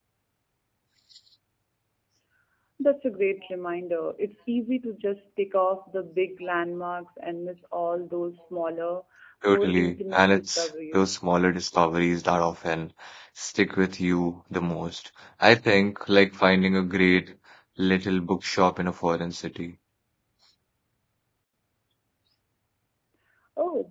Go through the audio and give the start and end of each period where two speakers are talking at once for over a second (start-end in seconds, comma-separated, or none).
9.5-11.1